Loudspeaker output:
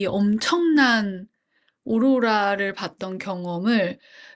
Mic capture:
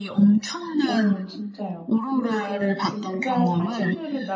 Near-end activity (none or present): present